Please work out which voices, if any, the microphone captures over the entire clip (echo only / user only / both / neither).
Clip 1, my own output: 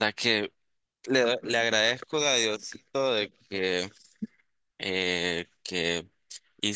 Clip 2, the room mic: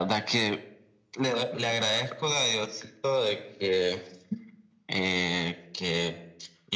echo only